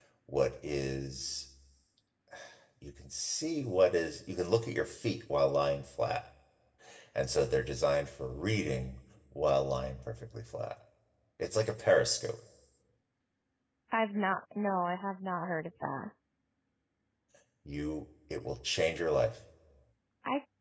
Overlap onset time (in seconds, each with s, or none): none